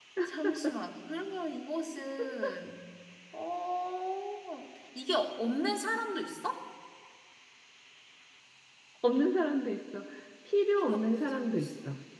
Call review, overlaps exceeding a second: present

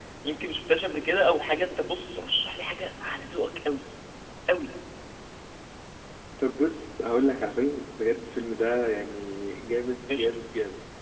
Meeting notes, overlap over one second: none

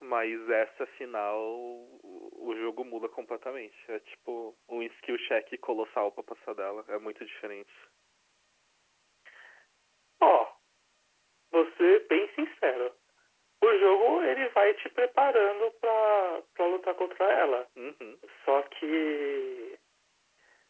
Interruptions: none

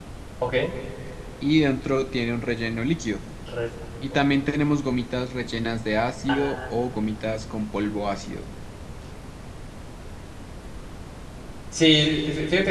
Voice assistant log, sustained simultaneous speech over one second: none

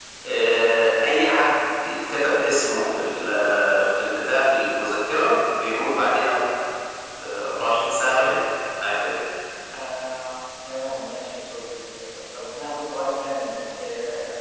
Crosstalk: none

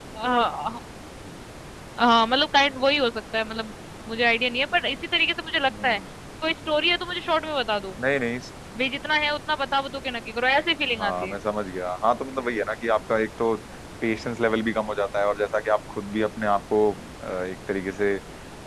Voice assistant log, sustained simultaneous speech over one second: none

